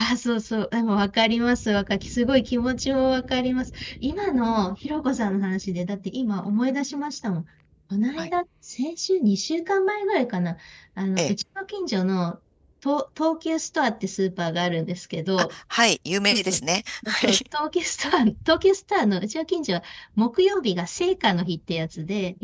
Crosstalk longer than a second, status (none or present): none